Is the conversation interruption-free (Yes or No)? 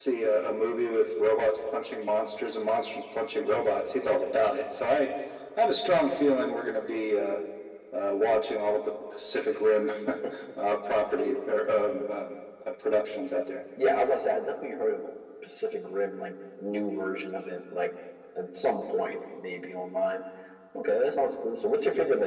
Yes